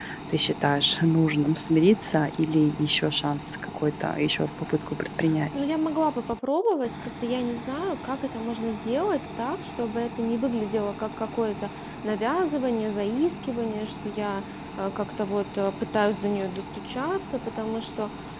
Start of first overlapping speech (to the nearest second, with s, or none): none